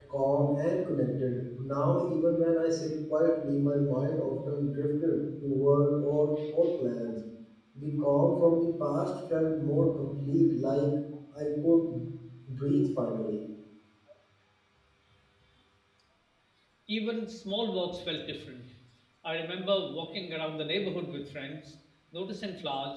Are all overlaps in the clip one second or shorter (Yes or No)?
Yes